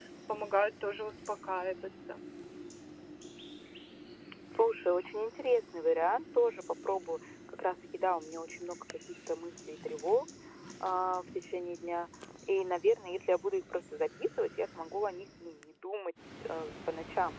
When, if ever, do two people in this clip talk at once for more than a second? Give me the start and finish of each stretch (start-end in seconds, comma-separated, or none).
none